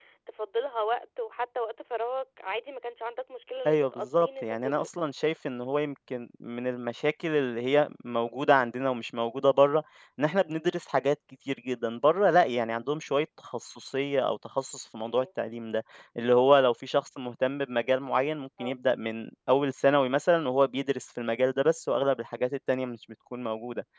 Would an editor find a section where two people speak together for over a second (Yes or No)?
Yes